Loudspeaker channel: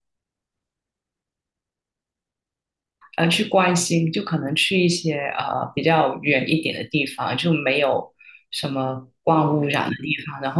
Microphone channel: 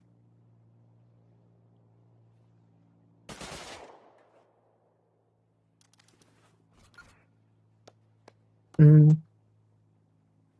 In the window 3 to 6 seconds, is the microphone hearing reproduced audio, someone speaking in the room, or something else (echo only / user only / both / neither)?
neither